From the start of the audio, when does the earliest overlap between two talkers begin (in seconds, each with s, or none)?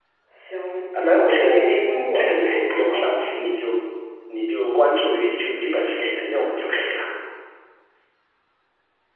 0.9 s